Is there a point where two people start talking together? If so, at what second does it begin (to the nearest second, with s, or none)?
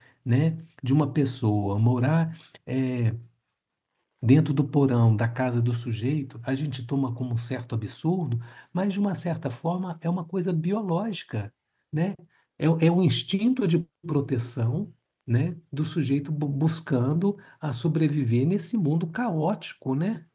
none